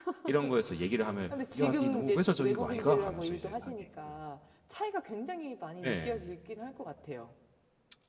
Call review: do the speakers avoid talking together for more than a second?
No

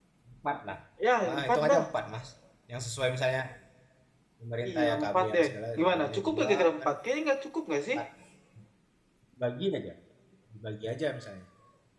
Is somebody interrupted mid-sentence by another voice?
Yes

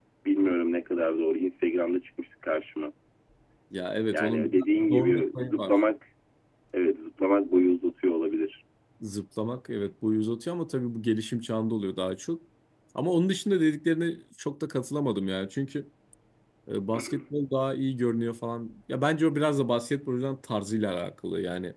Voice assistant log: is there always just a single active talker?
No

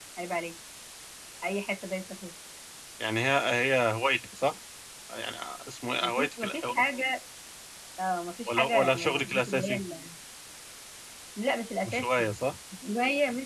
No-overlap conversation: No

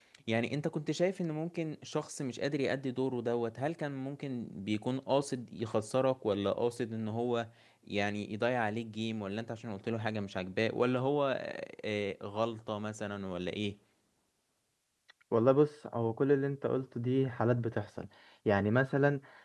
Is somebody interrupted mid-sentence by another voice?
No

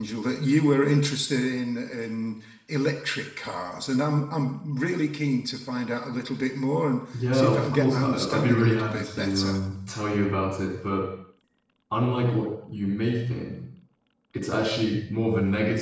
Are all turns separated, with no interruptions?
No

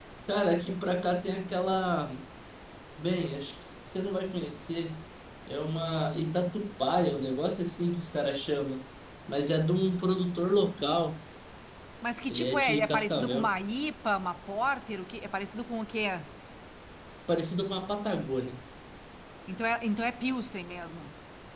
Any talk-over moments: Yes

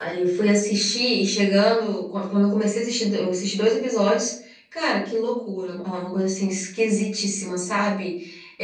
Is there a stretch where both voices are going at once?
No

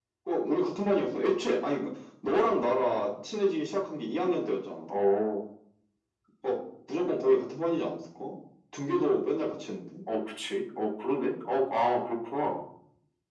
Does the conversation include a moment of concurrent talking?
No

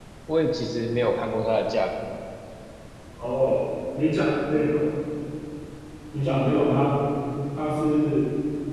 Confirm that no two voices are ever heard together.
Yes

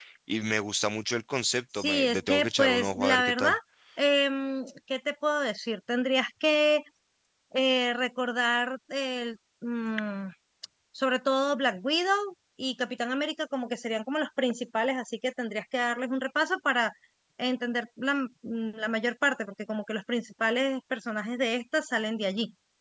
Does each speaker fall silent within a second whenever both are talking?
No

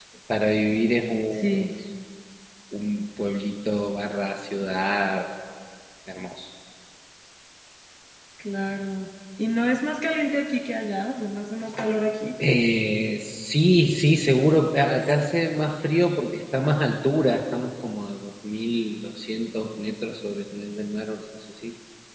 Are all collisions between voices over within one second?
Yes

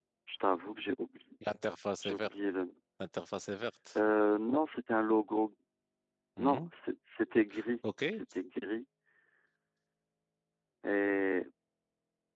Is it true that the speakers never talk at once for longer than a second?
Yes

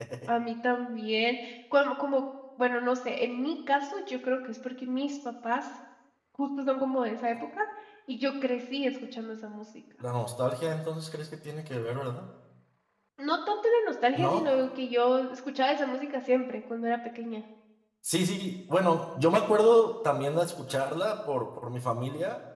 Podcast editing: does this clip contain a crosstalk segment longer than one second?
No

